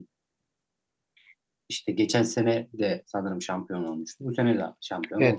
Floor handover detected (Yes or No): Yes